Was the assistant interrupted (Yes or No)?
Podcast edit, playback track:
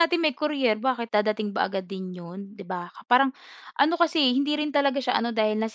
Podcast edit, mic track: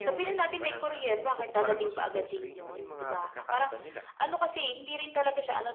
Yes